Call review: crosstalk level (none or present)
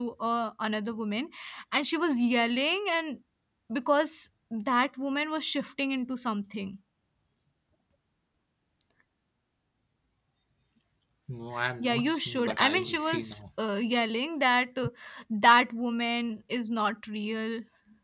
present